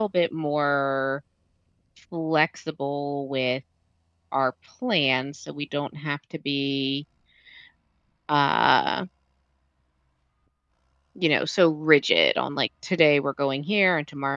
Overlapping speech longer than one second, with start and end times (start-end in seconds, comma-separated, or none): none